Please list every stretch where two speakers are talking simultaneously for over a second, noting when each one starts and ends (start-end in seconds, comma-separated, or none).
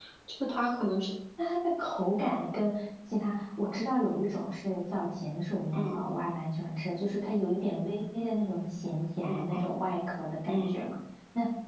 none